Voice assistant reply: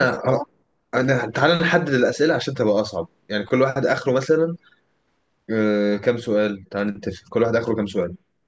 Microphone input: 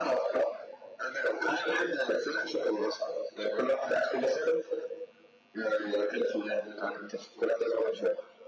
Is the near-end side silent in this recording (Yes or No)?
Yes